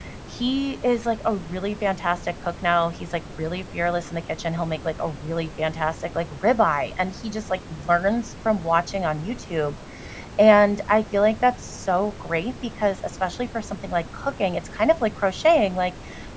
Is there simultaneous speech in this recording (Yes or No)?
No